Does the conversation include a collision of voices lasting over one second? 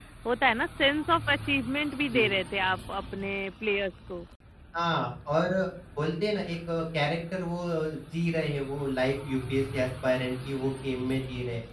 No

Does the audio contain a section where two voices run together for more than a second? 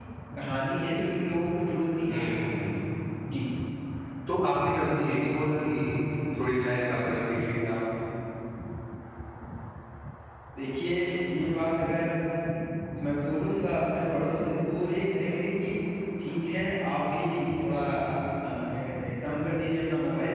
No

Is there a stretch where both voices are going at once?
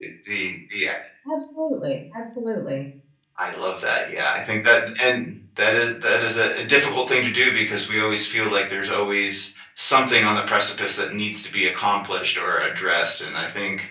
No

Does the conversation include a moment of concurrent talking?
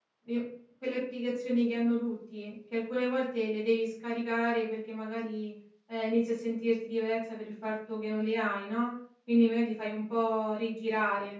No

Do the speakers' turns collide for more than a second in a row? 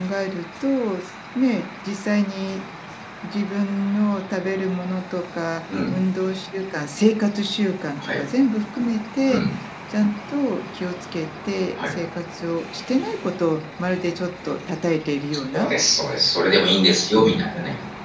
No

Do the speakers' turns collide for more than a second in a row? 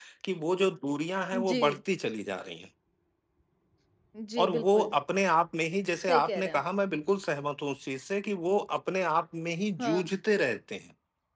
No

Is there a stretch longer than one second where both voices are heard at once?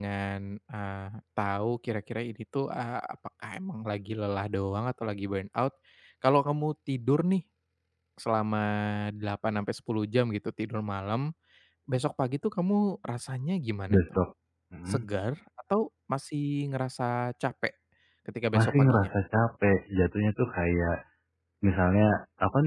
No

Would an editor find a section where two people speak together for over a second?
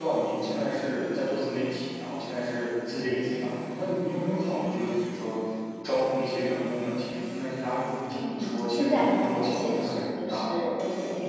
Yes, from 8.1 s

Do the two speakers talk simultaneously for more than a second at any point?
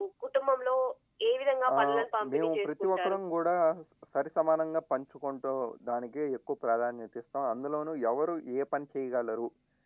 Yes, from 1.7 s

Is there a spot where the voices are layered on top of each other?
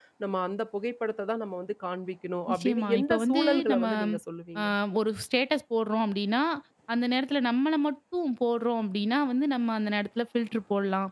Yes, from 2.5 s

